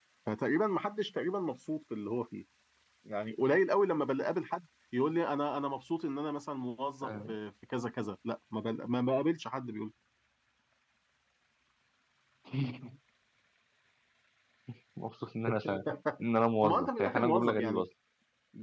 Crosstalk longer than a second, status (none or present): present